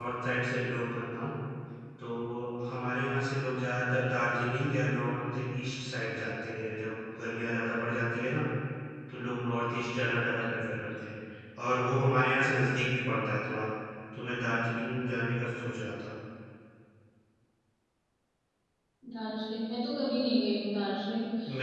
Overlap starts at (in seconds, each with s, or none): none